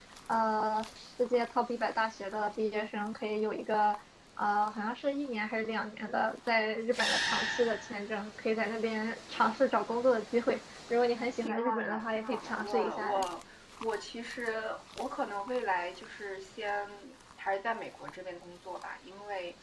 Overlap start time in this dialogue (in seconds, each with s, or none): 11.4 s